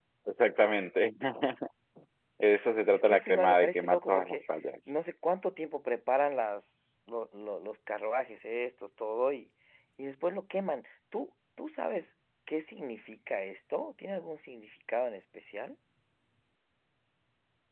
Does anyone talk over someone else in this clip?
Yes, from 2.9 s

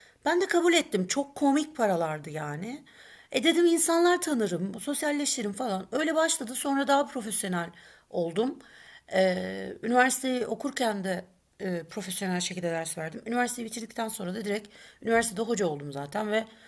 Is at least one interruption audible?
No

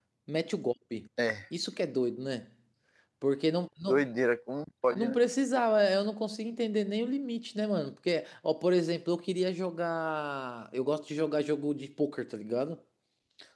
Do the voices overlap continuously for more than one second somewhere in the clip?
No

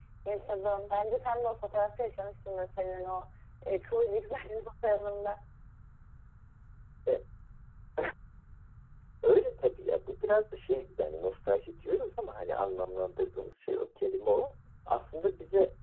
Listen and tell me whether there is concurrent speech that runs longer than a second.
No

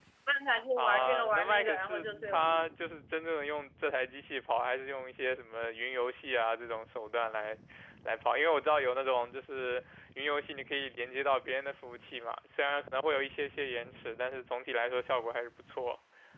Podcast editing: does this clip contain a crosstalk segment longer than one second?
Yes, from 0.8 s

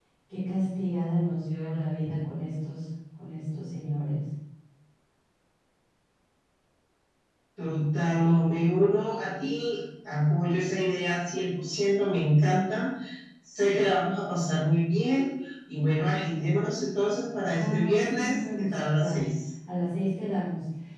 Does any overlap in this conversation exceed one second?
Yes, from 17.5 s

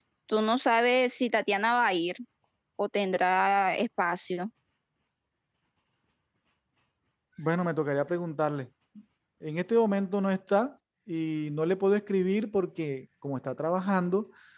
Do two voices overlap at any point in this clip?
No

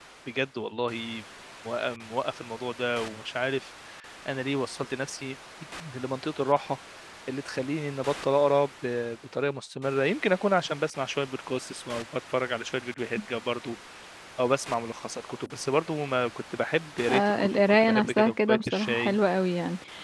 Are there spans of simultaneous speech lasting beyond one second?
Yes, from 17.1 s

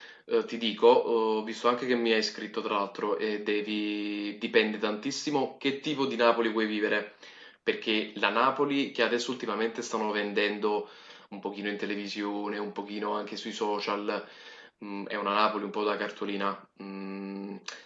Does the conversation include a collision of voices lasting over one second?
No

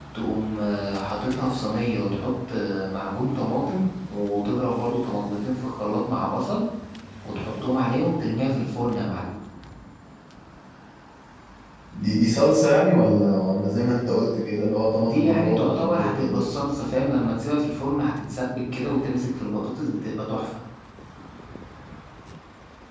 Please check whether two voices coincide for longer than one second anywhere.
Yes, from 15.0 s

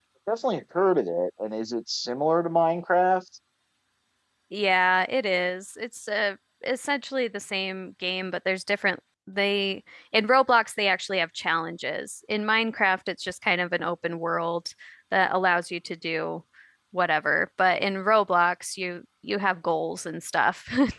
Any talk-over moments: No

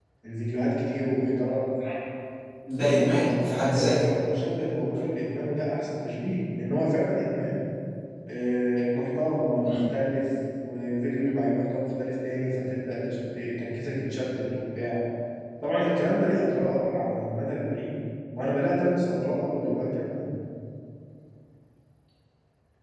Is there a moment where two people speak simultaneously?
Yes, from 2.8 s

